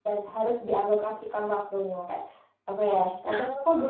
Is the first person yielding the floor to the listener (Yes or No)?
No